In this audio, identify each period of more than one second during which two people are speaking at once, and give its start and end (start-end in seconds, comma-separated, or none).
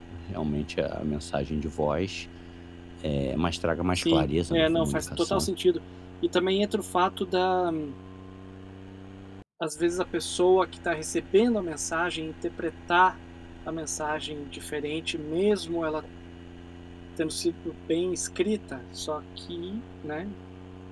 4.0-5.5